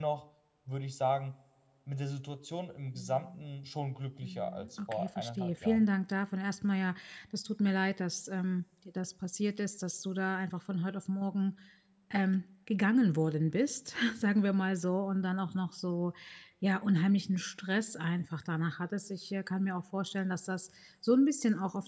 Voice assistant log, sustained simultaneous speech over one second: present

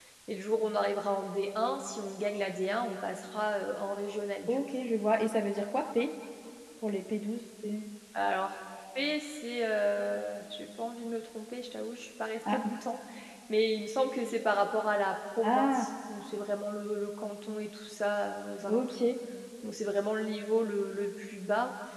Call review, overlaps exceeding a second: none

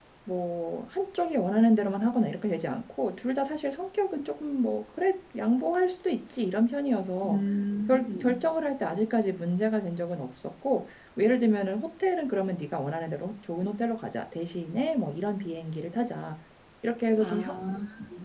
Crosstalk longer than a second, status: none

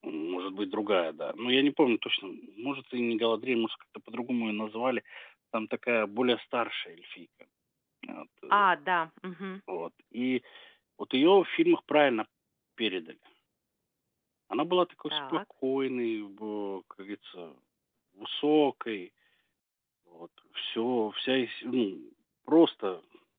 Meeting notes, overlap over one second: none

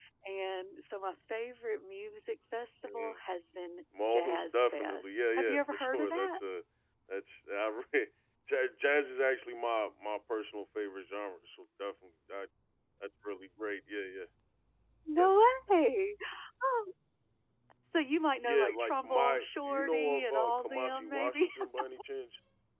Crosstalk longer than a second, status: present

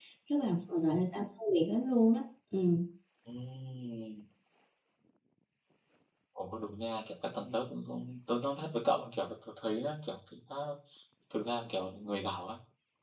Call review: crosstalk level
none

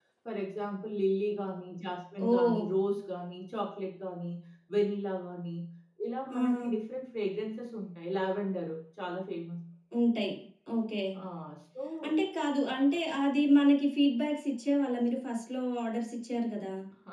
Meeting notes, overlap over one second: none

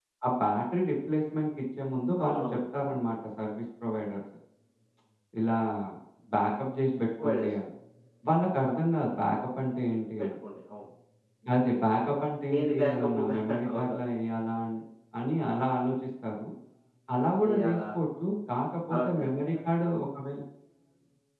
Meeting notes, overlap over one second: present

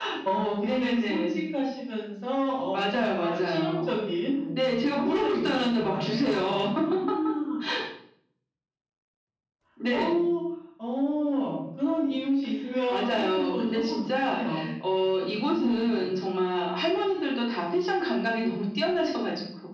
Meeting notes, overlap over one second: present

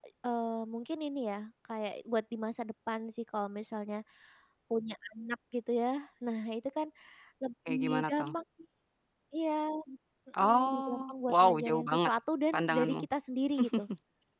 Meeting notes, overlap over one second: present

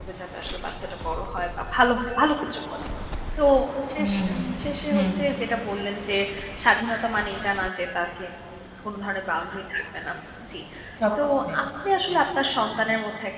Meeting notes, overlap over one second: present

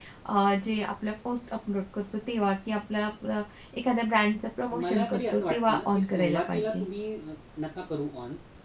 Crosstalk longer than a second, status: present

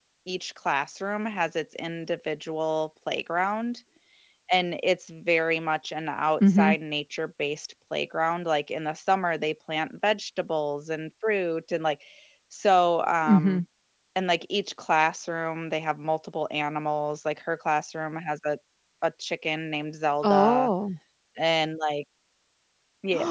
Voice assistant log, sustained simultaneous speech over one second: none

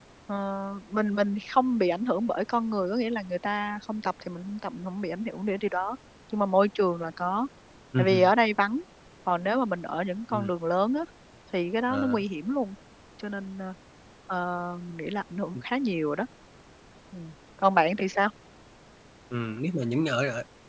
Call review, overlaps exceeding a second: none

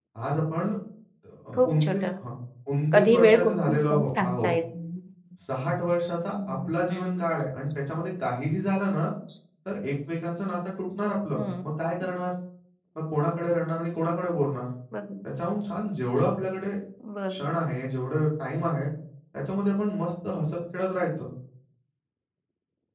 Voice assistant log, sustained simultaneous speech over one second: present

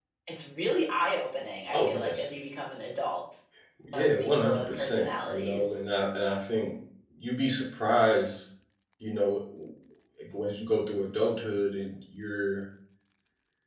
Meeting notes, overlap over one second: present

